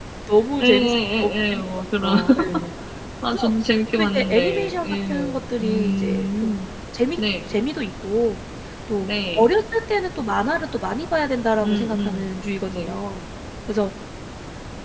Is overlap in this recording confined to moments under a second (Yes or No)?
No